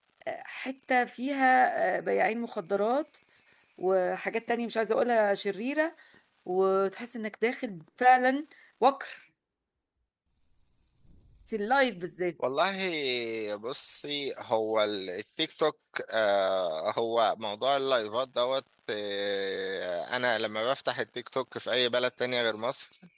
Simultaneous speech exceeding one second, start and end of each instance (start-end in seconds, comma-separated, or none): none